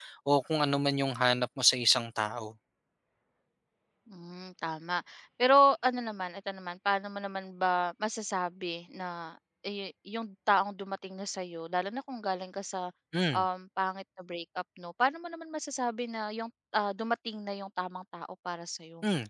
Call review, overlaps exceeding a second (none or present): none